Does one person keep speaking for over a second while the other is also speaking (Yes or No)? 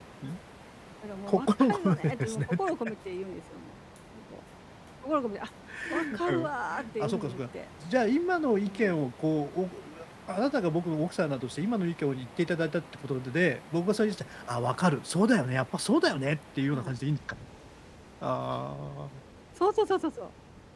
Yes